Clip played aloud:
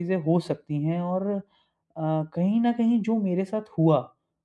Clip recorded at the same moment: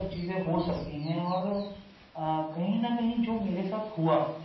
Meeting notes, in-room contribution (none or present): none